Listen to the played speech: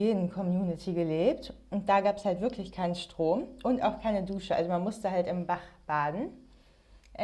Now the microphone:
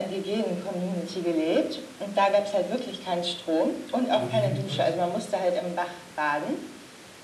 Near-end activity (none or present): present